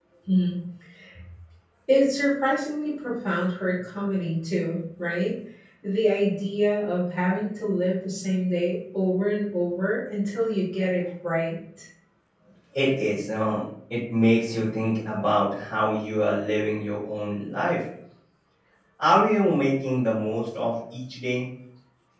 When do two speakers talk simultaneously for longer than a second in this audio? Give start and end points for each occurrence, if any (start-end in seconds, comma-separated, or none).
none